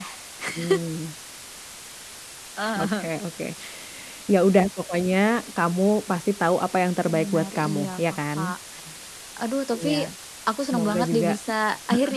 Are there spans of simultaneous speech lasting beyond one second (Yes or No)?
Yes